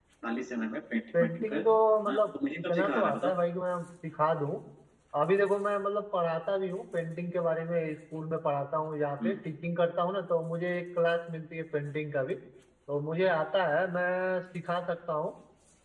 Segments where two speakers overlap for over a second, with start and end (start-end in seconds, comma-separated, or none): 2.1-3.3